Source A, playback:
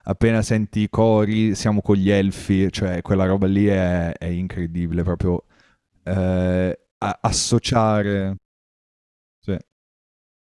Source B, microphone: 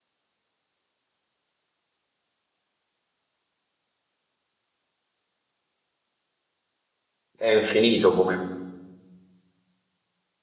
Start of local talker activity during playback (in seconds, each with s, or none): 7.3 s